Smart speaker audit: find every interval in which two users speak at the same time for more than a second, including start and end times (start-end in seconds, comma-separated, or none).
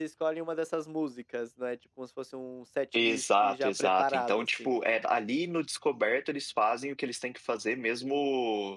3.0-4.7